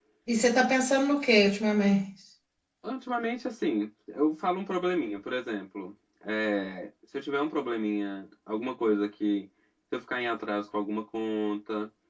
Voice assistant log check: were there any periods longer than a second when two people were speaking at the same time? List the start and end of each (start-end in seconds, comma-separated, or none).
none